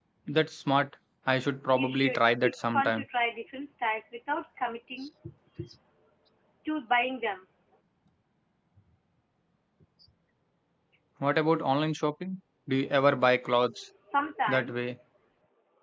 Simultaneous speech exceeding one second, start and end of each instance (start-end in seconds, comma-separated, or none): 1.8-3.0